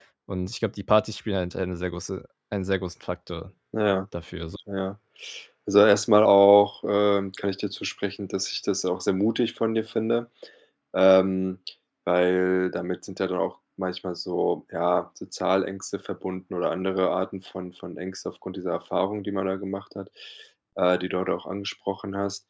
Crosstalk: none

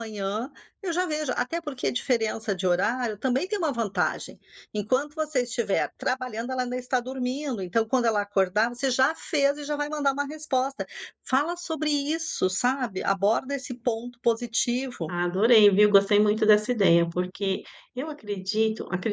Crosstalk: none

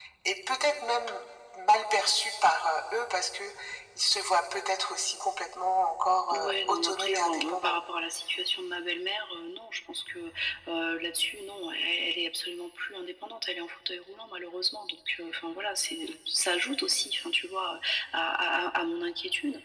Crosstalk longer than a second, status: present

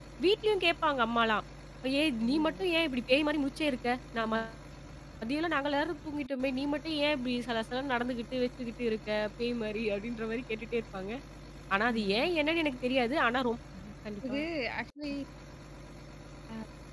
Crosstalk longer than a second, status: none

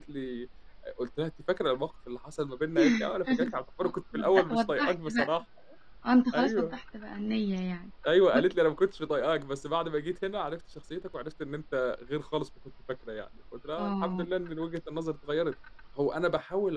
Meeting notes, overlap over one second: present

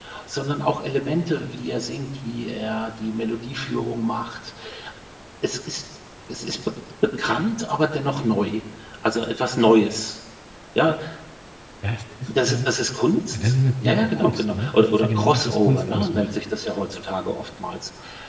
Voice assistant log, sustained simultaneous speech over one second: present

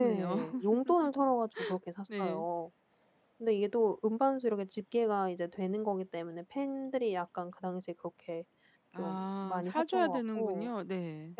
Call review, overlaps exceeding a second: present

